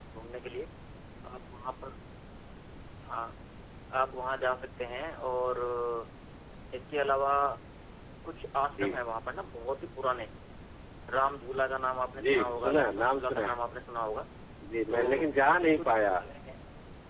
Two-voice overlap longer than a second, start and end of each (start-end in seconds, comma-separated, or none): 12.2-13.6, 14.9-16.1